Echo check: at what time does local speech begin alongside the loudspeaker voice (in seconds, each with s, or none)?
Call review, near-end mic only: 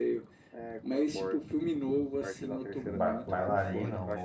2.8 s